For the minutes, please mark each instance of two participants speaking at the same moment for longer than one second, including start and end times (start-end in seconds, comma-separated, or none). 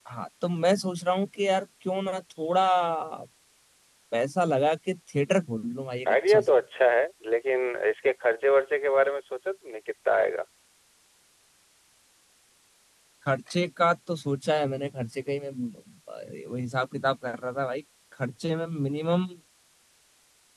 none